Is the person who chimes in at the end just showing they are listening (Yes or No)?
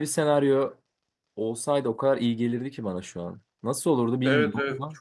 No